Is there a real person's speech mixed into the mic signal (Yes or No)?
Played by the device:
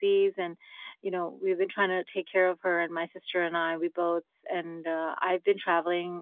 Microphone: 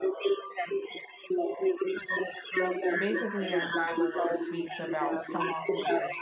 Yes